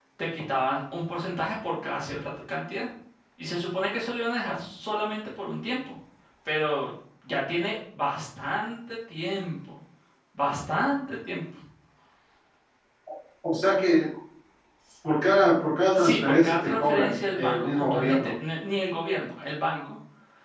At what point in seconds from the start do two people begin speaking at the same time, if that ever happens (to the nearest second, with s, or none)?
16 s